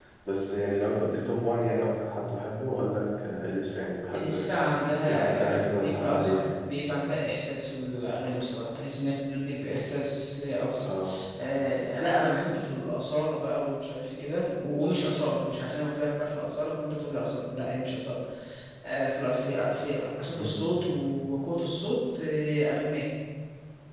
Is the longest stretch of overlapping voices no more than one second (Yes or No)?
No